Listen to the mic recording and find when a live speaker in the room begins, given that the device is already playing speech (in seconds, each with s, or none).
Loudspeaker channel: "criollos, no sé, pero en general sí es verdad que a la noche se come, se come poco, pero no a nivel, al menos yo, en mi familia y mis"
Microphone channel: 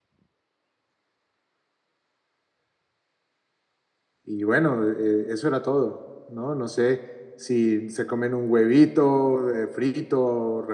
4.2 s